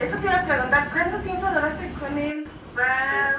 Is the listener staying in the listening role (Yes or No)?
No